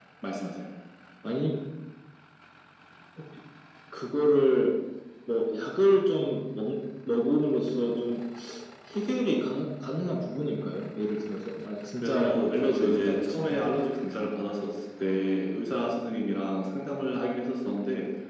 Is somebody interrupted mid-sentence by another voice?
Yes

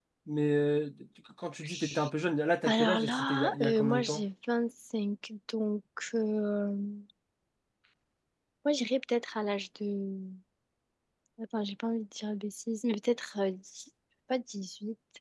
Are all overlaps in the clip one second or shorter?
No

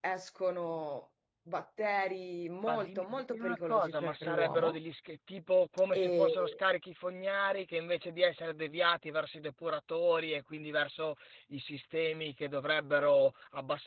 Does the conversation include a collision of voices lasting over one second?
Yes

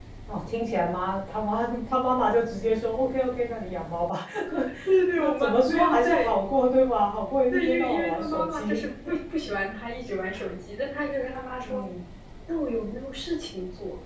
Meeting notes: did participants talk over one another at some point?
Yes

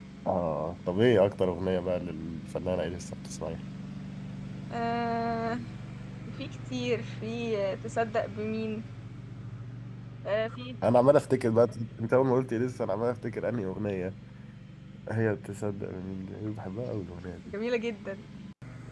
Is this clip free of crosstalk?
Yes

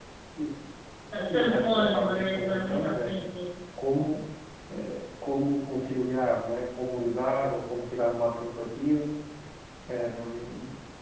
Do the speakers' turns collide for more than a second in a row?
Yes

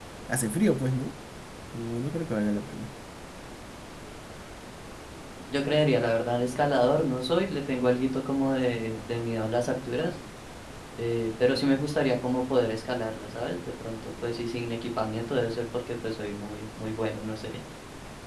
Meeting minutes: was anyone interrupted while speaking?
No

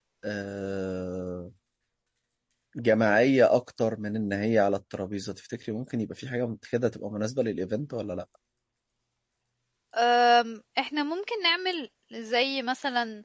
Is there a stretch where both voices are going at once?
No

